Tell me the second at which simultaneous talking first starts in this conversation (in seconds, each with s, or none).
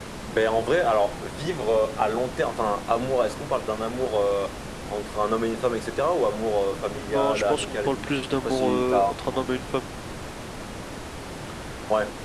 6.8 s